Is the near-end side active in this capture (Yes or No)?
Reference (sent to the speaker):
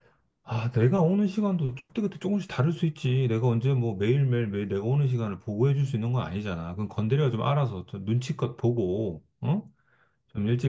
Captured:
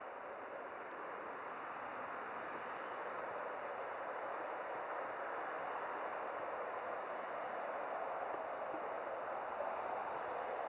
No